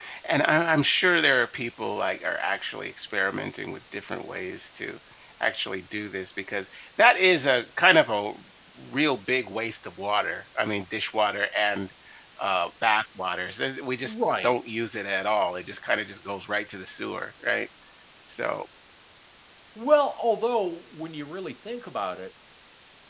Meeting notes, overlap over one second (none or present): none